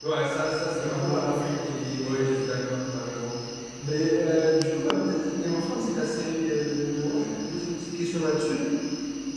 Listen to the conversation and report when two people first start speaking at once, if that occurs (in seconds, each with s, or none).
0.8 s